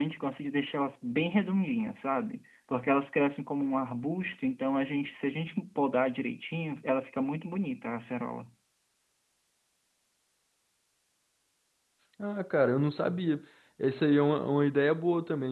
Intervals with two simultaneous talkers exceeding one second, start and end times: none

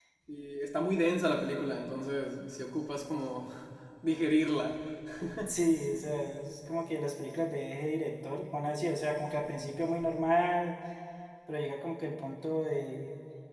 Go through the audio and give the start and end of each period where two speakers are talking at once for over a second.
none

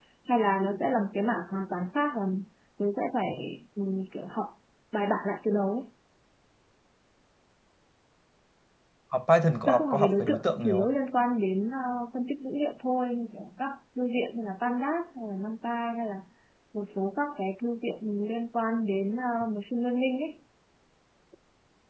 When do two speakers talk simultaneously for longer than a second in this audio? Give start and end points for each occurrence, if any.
9.7-10.9

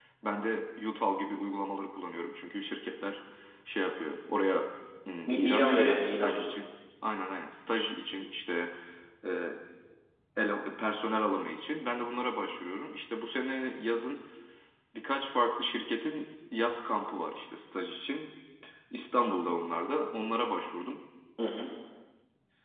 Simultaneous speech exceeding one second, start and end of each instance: 5.3-6.5

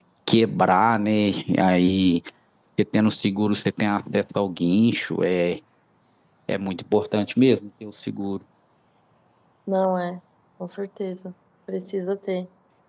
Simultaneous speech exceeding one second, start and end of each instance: none

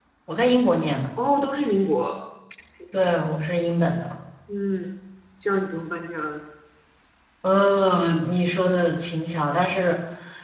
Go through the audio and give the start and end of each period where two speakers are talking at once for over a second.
none

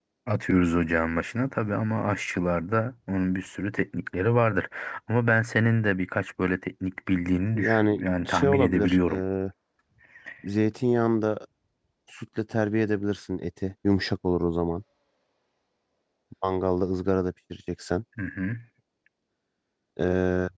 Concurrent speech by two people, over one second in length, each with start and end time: 7.5-9.2

